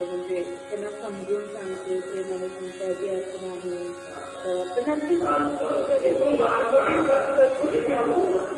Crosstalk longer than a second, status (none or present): present